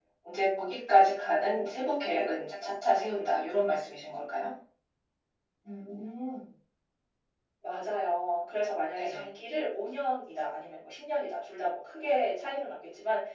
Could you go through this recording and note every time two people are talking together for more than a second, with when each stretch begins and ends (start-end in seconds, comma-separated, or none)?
none